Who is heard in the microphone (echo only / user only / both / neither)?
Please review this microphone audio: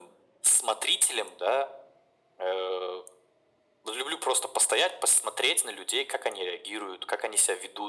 echo only